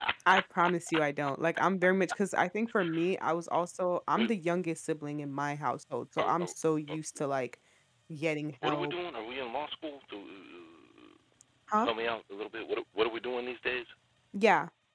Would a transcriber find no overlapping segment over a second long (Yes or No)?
Yes